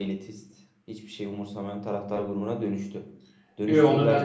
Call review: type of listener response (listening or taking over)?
taking over